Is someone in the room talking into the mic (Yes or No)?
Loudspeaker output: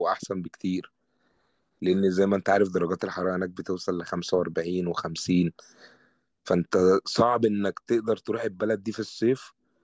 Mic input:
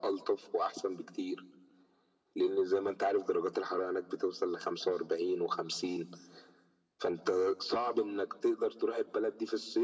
No